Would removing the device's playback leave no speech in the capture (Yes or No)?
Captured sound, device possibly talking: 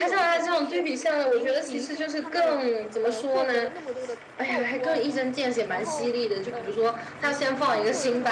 No